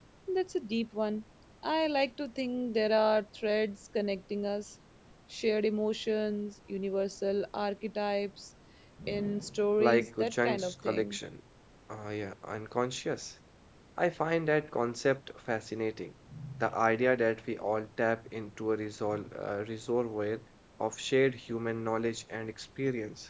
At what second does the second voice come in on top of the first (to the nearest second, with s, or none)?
10 s